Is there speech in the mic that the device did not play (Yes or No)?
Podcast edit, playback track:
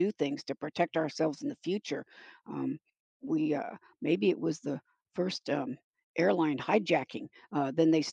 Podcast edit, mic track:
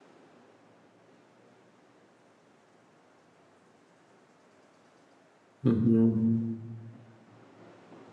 Yes